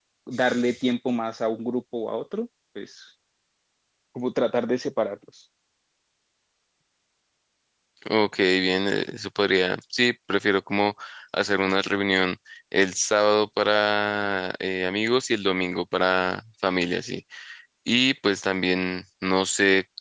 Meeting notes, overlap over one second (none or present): none